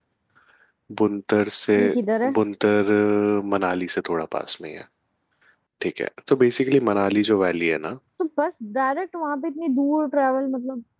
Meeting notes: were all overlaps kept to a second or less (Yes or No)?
Yes